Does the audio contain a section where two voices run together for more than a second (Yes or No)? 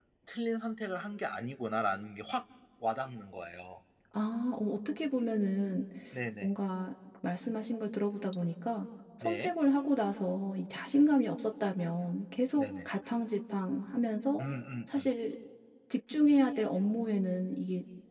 No